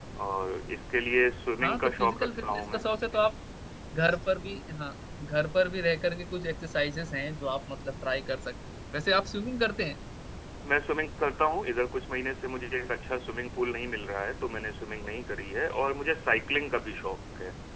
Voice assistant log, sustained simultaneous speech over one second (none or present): present